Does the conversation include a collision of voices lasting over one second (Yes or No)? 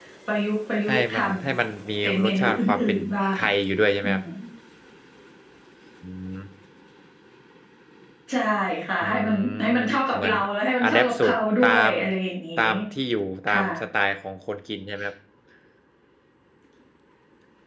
Yes